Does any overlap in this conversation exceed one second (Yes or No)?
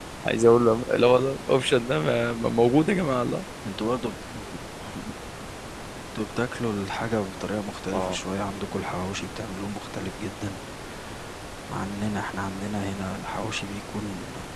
No